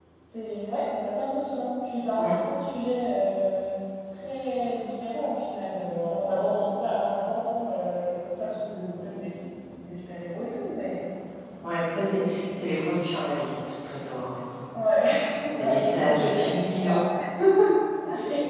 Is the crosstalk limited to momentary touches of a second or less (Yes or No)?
No